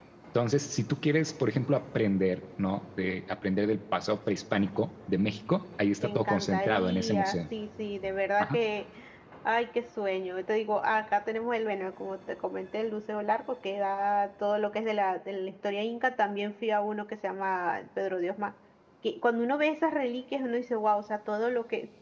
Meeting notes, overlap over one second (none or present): present